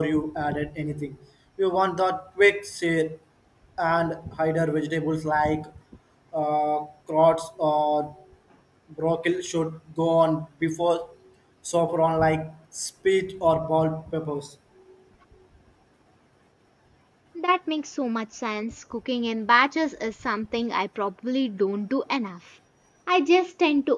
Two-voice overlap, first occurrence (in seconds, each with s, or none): none